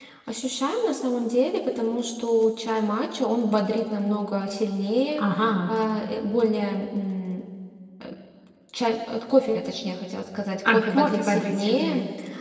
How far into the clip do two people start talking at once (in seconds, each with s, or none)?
10.7 s